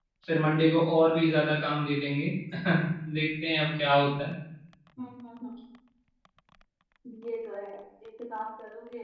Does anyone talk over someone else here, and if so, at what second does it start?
none

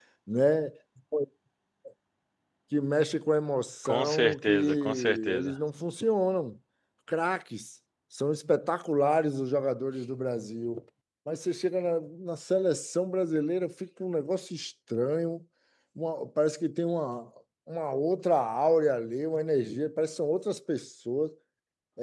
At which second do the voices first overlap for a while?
3.9 s

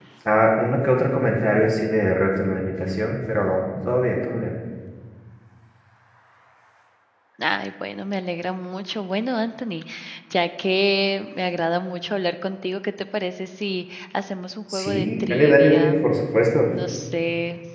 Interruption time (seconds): 14.7 s

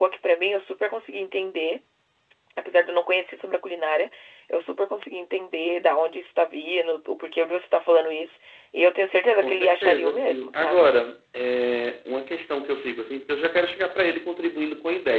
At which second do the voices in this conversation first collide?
9.4 s

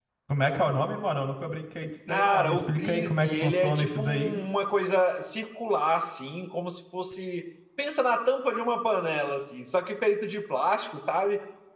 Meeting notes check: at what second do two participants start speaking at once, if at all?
2.1 s

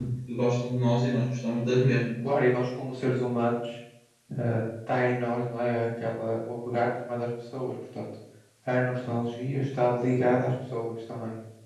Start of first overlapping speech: none

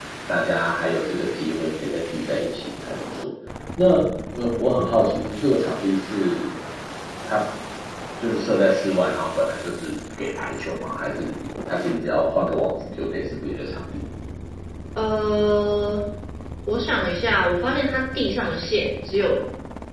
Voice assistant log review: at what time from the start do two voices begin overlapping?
none

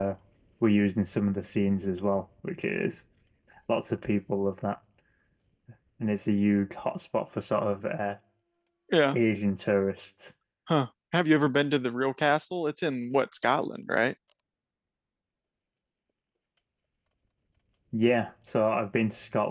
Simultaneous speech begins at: none

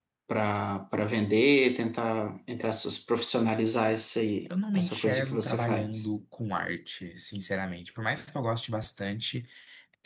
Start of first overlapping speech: 4.7 s

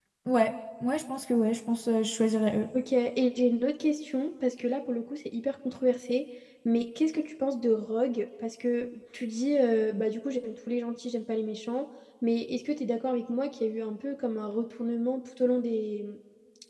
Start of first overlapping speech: none

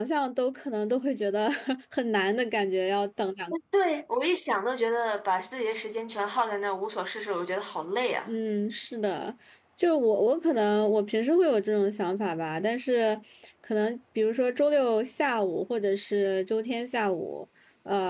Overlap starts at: none

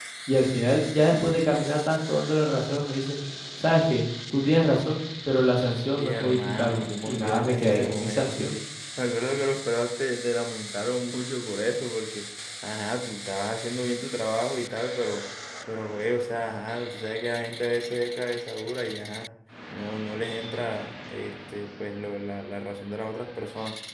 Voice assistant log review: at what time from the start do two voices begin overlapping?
5.9 s

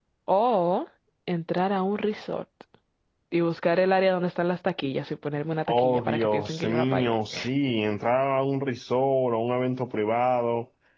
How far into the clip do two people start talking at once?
5.7 s

